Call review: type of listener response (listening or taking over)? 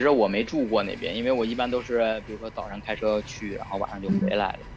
taking over